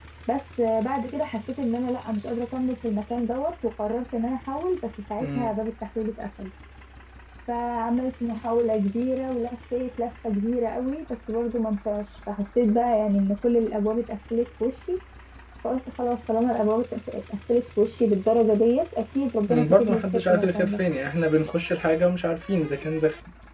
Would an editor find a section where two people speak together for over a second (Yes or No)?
Yes